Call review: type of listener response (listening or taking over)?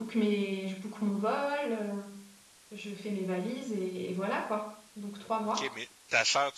taking over